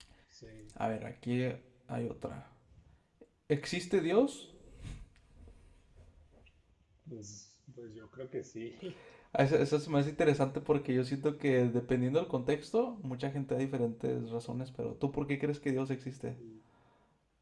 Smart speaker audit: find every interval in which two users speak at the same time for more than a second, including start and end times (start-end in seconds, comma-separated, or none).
none